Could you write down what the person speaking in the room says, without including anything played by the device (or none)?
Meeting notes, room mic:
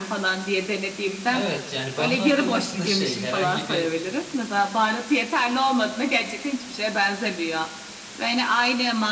Evet yani bu anlattığın aslında şey herhangi bir